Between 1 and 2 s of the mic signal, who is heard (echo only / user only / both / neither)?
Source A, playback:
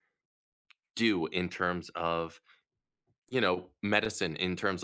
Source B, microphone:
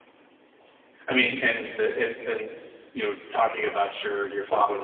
user only